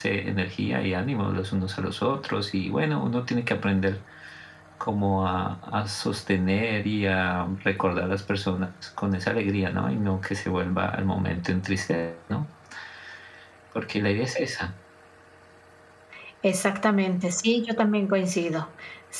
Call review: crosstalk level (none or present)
none